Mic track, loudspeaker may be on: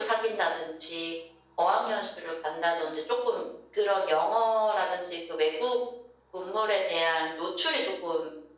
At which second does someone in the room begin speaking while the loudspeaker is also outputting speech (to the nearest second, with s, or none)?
none